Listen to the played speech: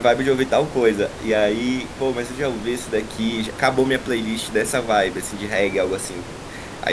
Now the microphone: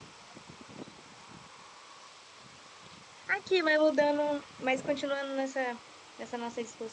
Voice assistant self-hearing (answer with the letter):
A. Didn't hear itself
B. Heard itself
A